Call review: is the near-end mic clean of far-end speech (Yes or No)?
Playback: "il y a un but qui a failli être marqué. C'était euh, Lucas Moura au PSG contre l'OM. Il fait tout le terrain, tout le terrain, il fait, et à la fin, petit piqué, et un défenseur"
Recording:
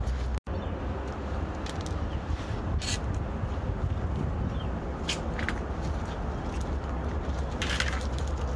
Yes